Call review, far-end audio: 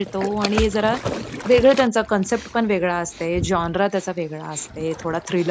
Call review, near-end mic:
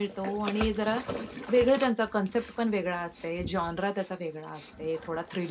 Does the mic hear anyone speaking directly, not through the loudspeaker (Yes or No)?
No